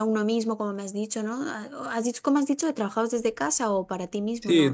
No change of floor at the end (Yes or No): No